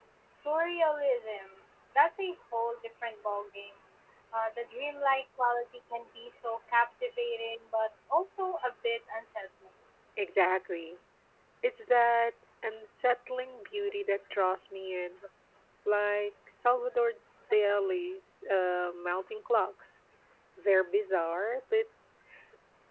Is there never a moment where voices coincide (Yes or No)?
Yes